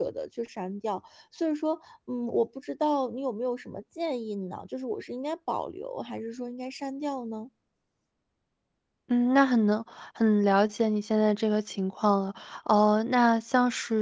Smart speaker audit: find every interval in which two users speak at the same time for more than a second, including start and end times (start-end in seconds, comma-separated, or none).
none